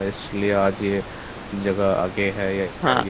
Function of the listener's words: taking over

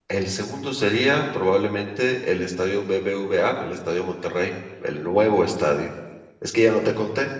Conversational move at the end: listening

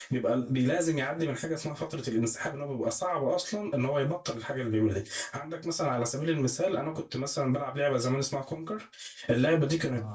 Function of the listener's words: listening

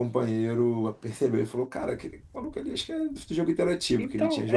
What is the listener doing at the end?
taking over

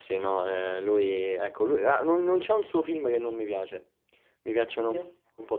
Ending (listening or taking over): listening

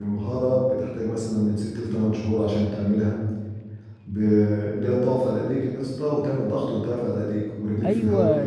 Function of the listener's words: taking over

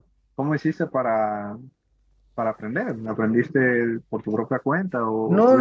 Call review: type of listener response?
taking over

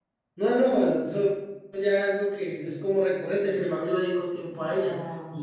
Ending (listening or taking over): taking over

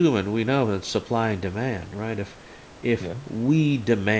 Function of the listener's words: listening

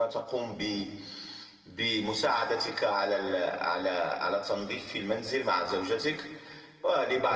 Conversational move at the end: listening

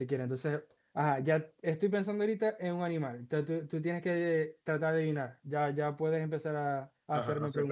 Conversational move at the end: taking over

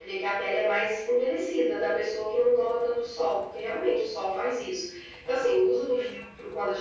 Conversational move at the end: listening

